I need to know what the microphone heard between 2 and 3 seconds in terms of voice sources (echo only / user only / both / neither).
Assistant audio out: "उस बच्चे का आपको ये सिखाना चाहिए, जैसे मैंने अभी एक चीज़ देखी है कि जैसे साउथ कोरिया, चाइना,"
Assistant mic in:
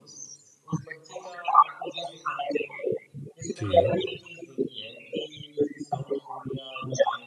echo only